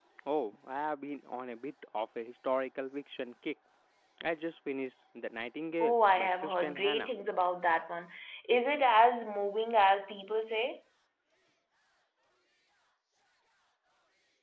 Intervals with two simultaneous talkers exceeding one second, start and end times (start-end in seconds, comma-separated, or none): 5.8-7.1